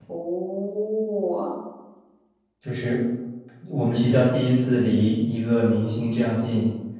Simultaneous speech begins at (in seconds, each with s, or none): none